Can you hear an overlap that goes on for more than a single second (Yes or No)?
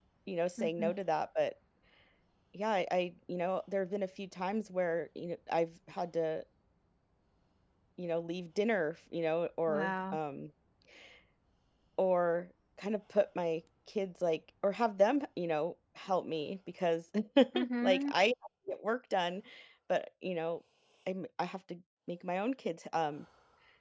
No